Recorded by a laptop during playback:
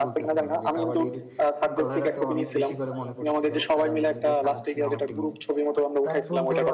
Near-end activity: present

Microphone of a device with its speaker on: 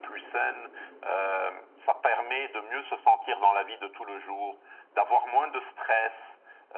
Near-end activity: none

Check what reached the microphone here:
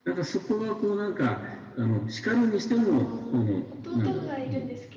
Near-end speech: present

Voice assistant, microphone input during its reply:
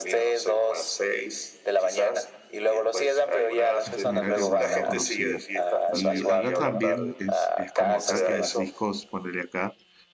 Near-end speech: present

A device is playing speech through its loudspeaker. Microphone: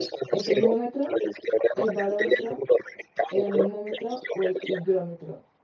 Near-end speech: present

